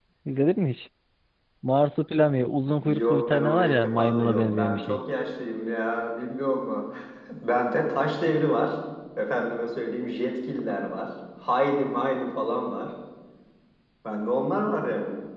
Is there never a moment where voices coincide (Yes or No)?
No